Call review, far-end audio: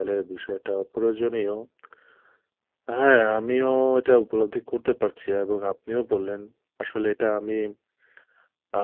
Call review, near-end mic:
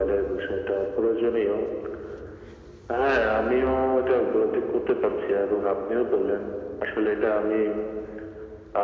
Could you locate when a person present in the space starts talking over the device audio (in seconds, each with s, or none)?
none